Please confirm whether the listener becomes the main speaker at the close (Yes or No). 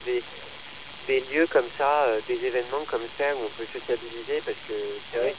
Yes